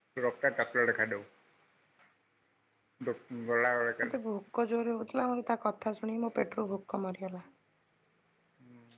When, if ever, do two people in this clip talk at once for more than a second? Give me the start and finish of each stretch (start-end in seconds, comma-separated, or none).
none